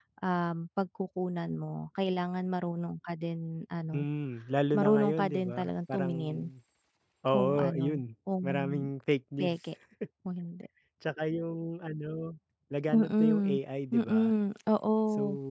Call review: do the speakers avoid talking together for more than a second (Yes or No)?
No